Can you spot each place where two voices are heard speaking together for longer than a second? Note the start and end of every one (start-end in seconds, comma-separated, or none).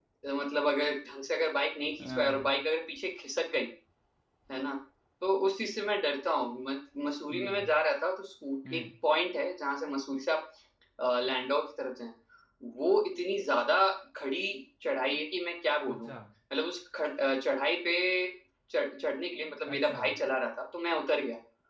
none